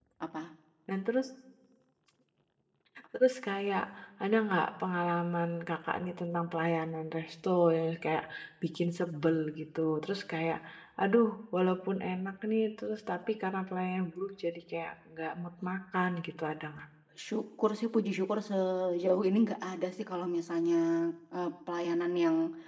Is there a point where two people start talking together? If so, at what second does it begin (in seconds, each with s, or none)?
none